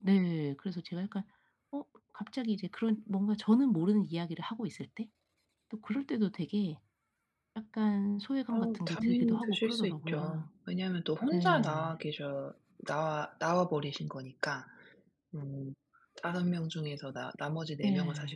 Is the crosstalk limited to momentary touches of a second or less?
No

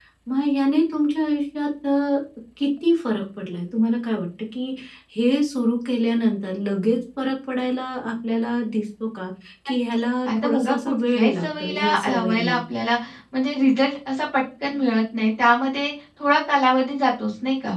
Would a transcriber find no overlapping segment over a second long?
No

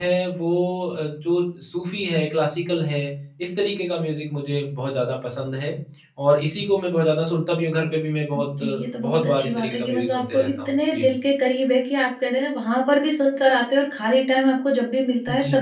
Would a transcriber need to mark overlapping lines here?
Yes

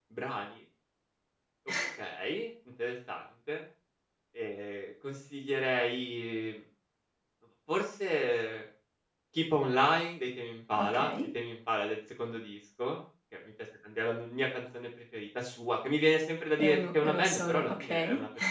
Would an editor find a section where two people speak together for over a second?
Yes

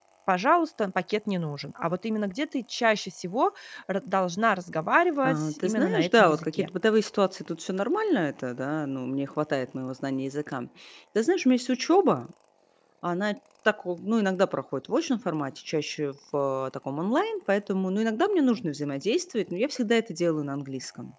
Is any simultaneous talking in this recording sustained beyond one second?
Yes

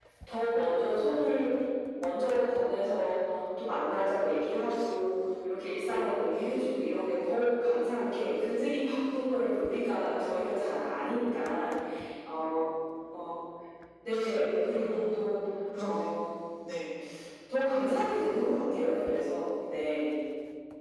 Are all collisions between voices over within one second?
Yes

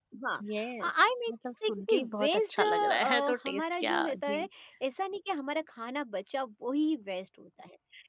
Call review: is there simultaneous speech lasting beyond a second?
Yes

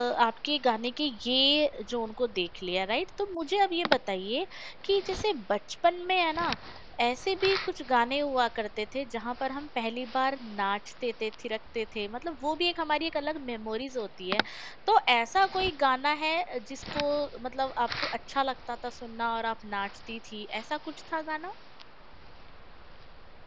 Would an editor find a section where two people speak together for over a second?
No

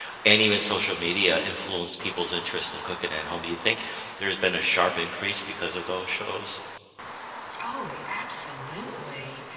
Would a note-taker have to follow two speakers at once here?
No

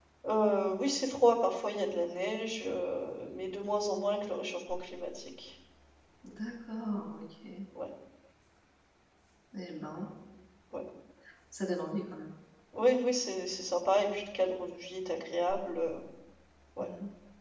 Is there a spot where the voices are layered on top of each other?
No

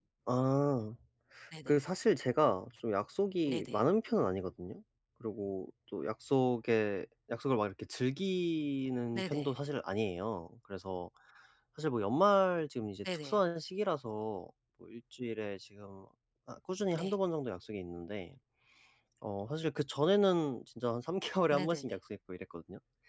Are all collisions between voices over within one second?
Yes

